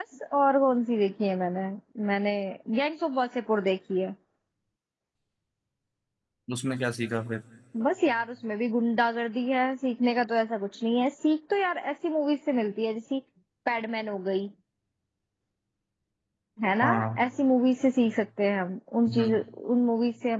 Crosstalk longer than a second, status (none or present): none